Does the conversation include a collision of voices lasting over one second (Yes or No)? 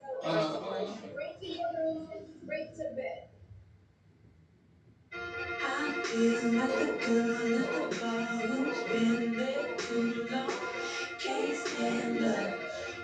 Yes